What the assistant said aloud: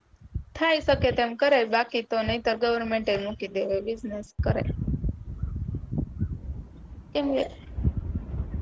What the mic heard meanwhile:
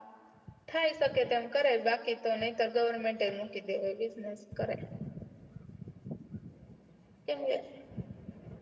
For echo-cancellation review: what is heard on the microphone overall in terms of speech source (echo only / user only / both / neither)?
echo only